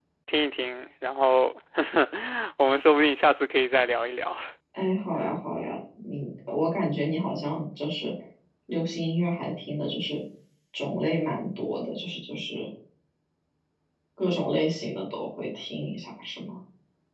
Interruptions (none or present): none